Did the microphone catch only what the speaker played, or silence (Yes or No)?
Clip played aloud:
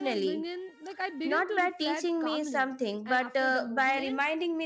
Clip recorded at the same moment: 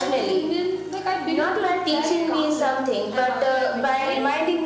No